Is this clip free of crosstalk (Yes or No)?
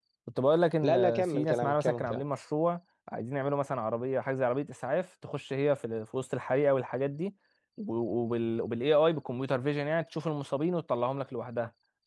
No